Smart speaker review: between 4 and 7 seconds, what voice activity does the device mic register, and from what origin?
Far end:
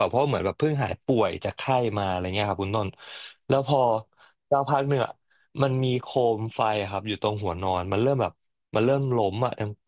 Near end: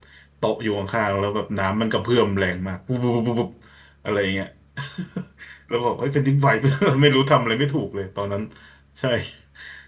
user only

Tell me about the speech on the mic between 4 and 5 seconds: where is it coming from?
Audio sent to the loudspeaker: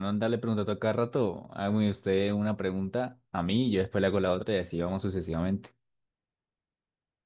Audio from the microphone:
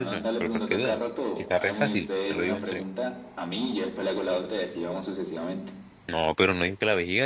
echo only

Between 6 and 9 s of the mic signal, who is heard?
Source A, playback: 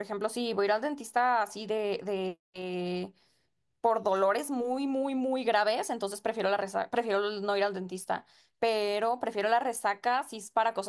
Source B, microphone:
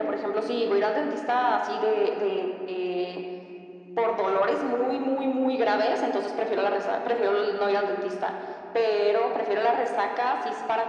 echo only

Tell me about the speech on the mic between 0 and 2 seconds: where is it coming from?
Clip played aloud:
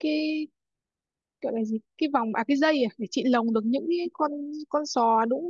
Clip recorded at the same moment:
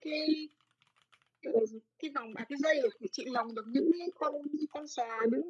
echo only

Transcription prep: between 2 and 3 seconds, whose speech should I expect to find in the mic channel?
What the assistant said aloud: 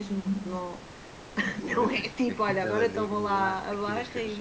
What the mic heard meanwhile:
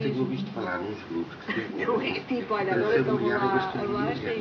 both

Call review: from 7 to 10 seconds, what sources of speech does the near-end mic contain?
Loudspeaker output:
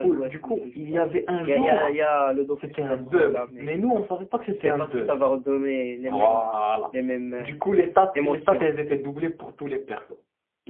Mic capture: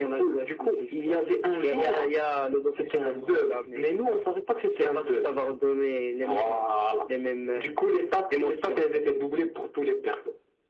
echo only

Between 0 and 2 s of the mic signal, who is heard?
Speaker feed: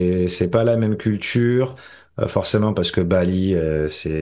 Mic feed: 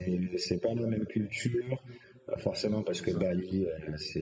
echo only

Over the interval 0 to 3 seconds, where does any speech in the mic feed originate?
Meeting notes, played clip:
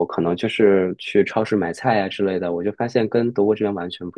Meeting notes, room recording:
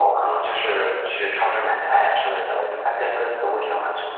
echo only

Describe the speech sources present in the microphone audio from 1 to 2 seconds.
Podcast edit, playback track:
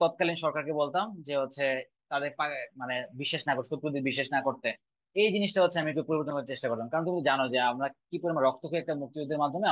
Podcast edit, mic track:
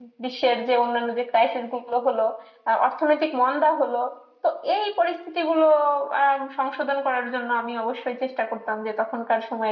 user only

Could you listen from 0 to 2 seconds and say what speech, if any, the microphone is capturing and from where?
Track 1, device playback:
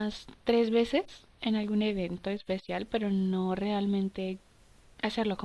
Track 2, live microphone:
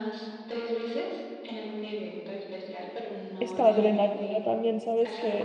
echo only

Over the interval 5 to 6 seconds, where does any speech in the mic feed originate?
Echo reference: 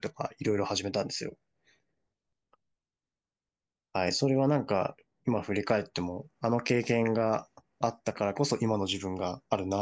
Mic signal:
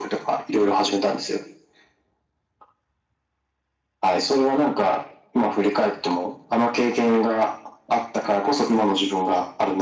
echo only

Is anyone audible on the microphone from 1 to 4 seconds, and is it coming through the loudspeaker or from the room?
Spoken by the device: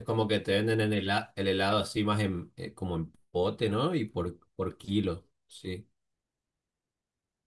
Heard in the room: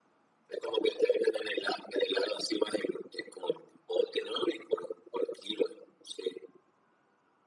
echo only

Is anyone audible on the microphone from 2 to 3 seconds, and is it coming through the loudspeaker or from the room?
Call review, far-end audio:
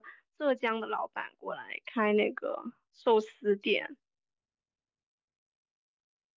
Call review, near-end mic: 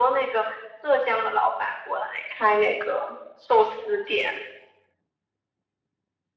echo only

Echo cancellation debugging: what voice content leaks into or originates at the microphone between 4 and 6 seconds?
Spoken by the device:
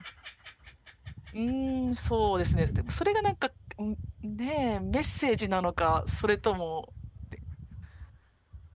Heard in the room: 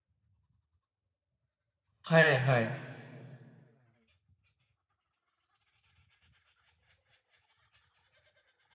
neither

